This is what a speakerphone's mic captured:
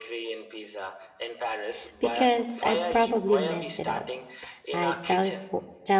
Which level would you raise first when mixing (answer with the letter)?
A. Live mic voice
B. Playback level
B